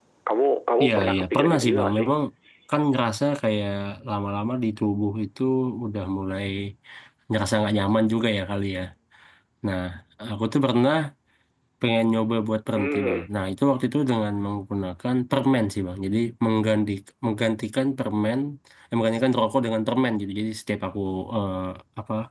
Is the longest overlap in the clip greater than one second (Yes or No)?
Yes